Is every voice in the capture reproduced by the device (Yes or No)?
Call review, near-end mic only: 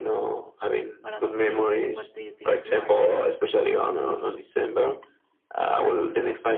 No